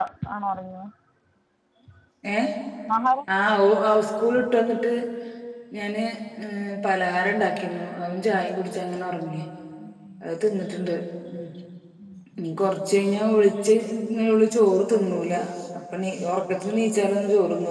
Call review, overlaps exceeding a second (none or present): none